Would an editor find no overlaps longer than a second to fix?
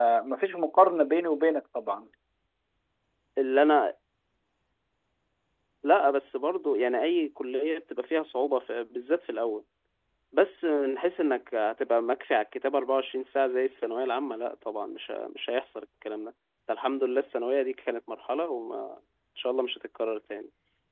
Yes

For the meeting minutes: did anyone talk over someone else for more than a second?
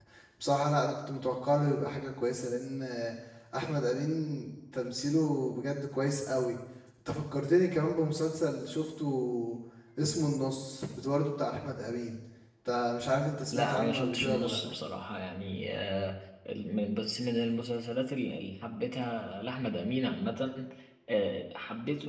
Yes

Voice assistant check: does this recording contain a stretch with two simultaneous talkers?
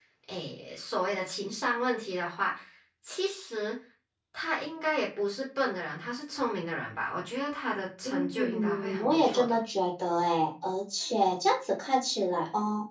Yes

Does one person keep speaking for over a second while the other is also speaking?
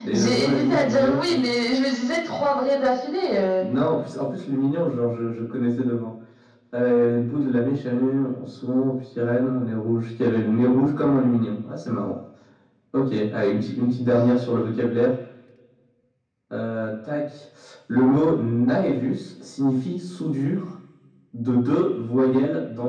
Yes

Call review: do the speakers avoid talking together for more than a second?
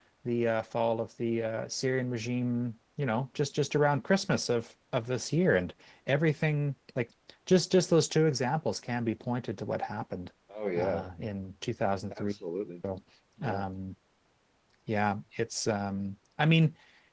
Yes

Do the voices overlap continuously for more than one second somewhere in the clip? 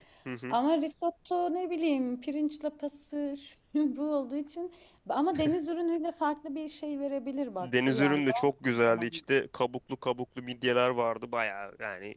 Yes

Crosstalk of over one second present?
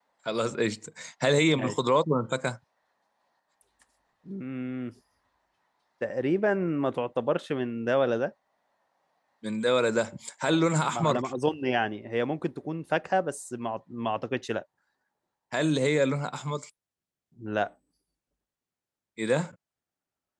No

